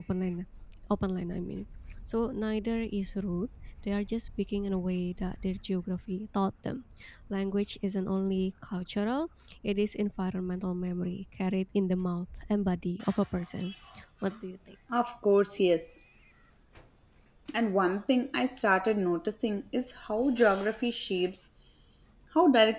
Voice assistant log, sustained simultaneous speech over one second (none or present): none